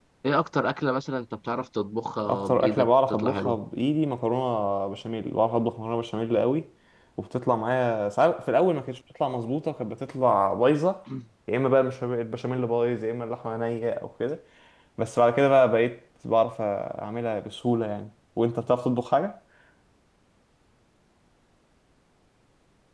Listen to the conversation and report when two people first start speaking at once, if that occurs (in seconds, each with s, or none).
2.2 s